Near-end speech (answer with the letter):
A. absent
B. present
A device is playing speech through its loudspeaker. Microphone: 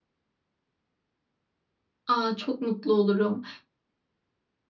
B